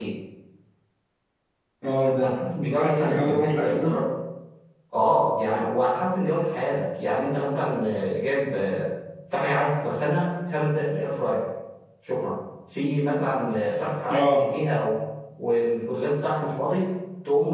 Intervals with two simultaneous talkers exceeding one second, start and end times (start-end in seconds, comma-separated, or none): 2.7-4.0